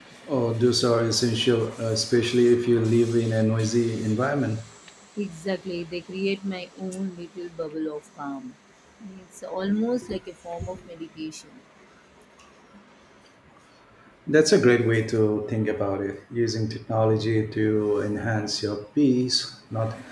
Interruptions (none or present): none